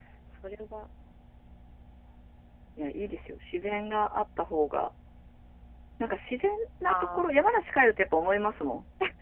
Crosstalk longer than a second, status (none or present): none